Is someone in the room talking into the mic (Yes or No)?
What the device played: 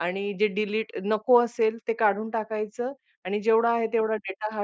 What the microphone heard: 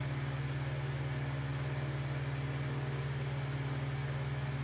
No